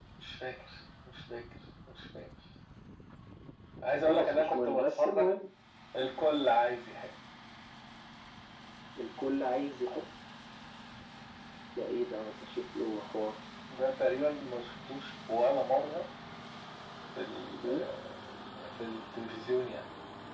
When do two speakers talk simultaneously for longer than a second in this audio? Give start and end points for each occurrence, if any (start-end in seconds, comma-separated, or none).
4.0-5.3